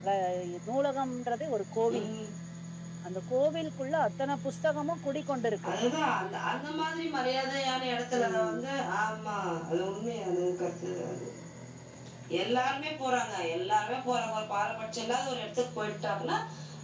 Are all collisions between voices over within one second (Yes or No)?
Yes